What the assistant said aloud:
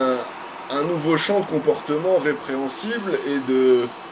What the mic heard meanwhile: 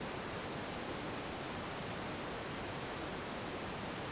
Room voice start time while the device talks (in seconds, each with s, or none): none